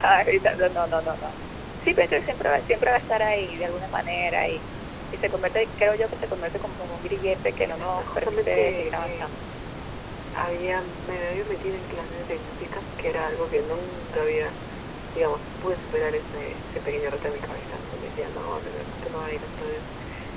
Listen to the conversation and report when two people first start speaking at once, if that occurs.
7.6 s

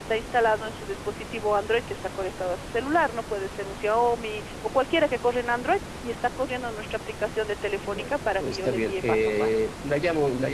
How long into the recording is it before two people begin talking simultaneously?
7.8 s

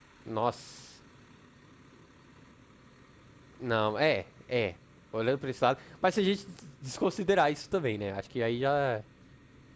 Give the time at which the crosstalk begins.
none

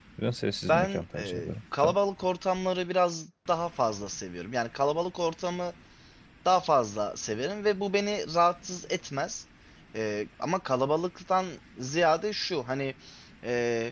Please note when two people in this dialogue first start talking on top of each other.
0.7 s

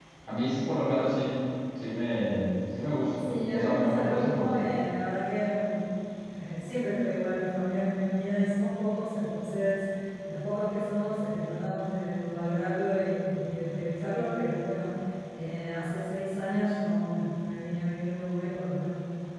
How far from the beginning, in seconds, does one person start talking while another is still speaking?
3.2 s

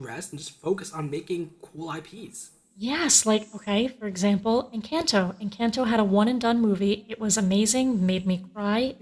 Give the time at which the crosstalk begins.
none

